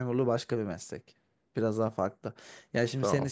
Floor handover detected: No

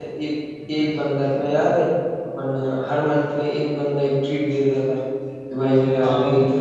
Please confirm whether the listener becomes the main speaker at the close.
No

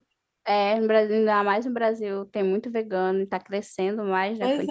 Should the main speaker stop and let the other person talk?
Yes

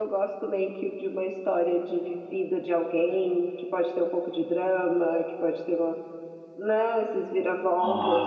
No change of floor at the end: Yes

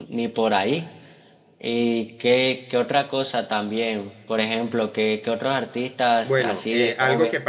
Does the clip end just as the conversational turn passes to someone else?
Yes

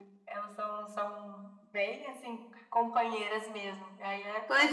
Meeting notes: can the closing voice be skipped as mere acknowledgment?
No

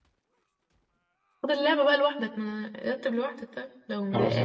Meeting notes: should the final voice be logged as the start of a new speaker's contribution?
Yes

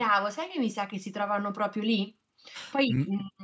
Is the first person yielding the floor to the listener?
No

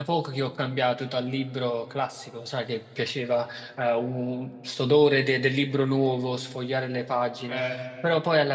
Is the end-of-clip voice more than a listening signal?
No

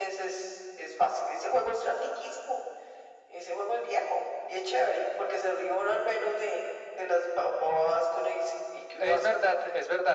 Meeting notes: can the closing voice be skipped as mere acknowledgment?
No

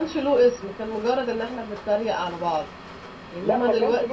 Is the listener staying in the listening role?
No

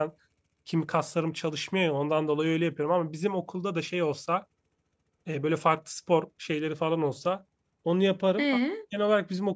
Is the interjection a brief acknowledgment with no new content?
Yes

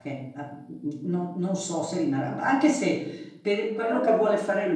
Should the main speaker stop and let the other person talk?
No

